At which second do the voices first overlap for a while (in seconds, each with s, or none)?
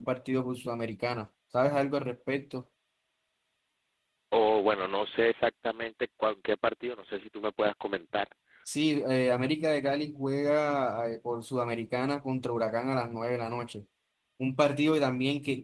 none